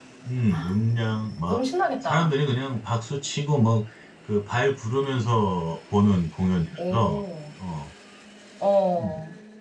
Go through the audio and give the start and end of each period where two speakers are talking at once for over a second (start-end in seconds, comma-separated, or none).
none